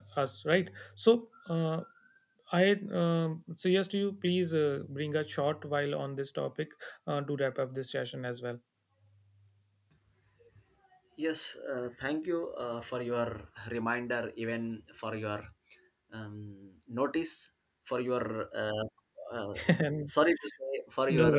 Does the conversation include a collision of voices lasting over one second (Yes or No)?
No